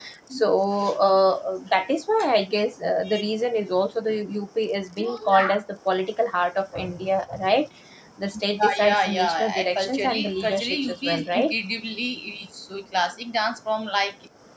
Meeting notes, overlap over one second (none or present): present